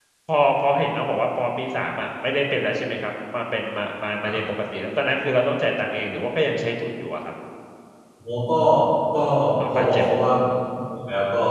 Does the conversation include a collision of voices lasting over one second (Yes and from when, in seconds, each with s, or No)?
No